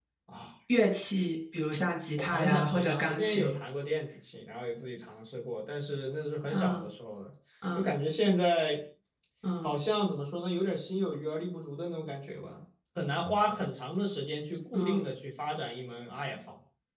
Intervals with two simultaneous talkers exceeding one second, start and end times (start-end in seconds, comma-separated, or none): 2.2-3.6